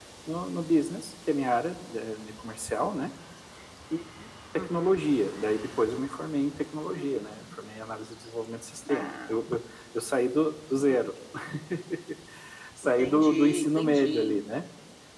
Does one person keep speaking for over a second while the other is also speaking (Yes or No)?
Yes